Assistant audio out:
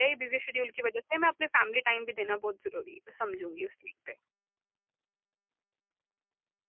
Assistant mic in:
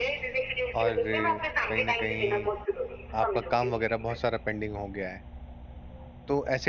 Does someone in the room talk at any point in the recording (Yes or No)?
Yes